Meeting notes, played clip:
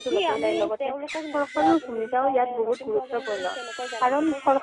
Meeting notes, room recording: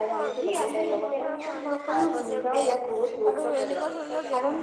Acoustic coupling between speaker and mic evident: Yes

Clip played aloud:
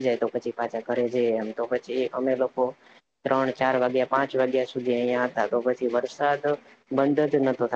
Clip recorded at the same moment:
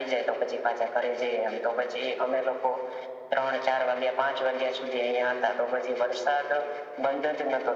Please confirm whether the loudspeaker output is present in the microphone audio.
Yes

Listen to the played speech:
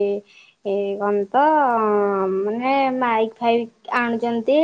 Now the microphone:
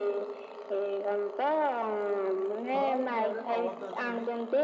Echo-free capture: No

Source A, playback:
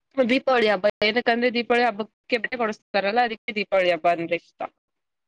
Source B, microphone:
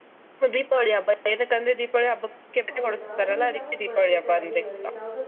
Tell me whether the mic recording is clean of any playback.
No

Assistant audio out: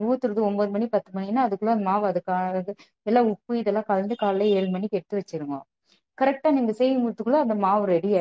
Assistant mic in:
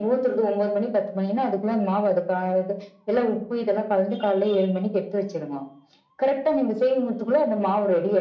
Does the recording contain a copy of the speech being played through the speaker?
Yes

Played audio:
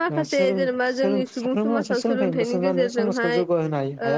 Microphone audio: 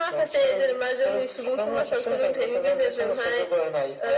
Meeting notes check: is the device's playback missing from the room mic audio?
No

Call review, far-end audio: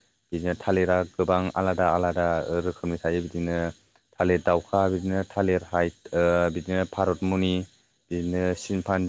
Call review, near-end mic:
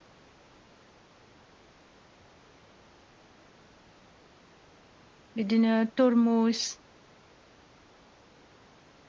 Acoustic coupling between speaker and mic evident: No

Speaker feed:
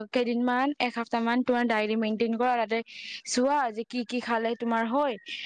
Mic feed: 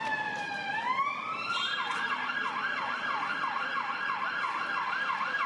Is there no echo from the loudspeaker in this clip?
Yes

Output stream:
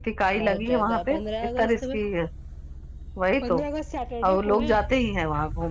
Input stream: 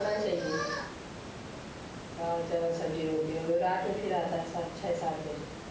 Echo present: No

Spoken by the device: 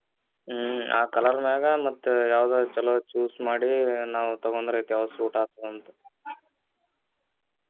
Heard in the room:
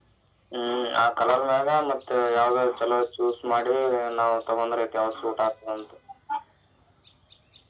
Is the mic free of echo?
No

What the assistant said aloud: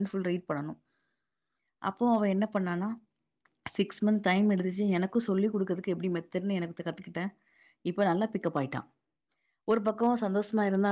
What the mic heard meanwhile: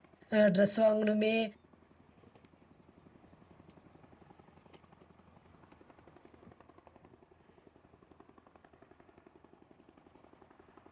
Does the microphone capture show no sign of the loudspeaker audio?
Yes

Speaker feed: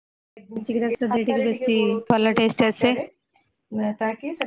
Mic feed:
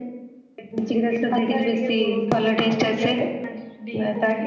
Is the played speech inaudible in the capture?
No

